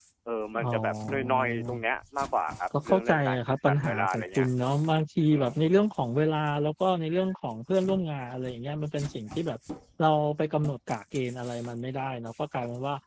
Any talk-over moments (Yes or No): Yes